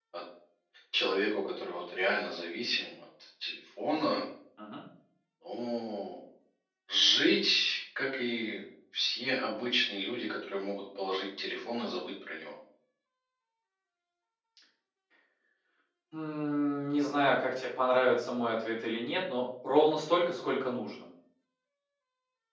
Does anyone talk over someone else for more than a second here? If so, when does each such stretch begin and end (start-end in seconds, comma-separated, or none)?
none